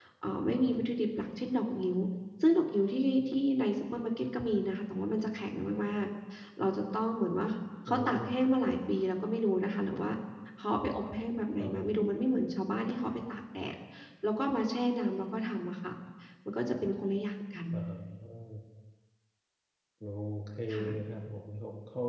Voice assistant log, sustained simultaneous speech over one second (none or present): none